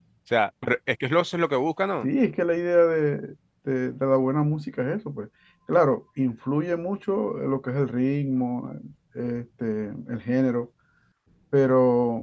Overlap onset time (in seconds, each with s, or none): none